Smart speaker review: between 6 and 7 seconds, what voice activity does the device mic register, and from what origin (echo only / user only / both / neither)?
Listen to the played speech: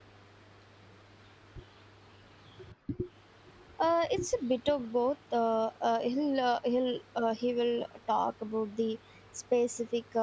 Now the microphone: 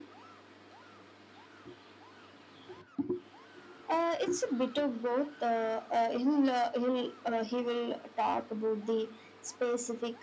echo only